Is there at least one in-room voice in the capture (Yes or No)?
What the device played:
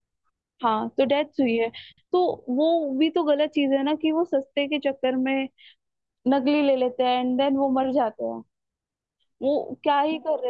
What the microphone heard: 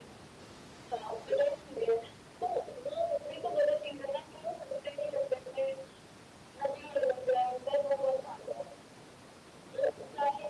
No